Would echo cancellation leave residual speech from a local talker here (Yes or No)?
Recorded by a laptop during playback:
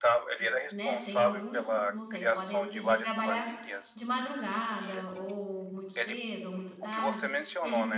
Yes